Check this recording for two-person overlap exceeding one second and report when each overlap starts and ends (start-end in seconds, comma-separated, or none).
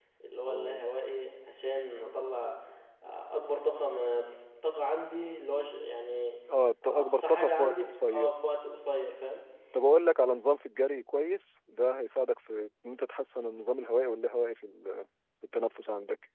6.9-8.3